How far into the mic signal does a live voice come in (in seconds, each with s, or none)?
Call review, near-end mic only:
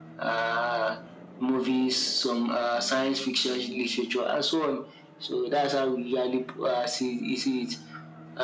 none